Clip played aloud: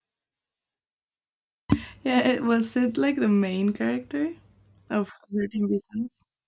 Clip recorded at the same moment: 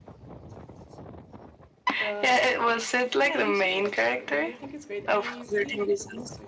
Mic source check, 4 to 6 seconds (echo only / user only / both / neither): both